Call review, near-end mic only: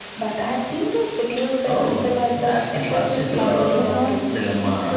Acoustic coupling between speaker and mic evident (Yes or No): Yes